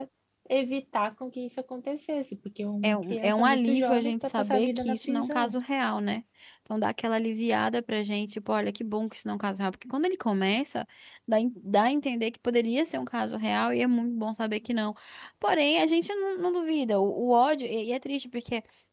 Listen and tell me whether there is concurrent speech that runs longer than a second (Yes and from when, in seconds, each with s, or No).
Yes, from 2.8 s